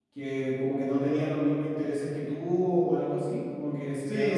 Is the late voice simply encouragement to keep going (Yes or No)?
No